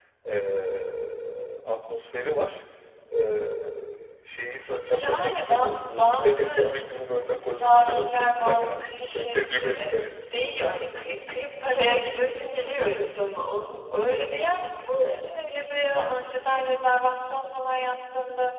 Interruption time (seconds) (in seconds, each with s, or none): 4.8 s